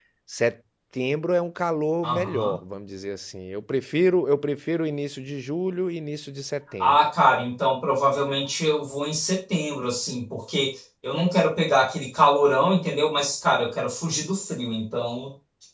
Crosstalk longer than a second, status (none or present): none